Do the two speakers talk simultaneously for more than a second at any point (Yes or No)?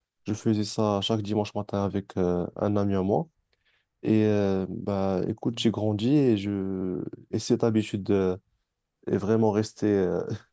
No